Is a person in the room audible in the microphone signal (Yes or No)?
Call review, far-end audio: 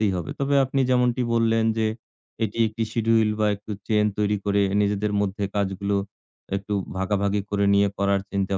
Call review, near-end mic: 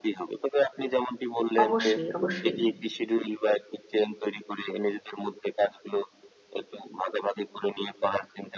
Yes